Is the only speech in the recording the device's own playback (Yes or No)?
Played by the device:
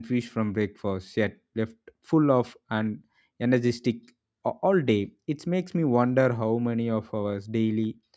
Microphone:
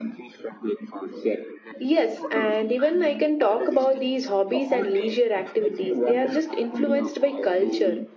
No